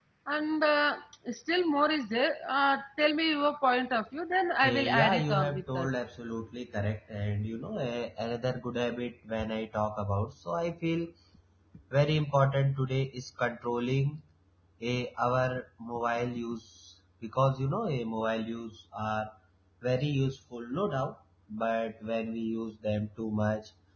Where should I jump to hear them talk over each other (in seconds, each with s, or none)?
4.6 s